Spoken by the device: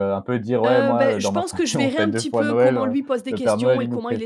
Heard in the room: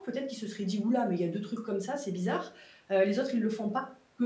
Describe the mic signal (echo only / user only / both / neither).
user only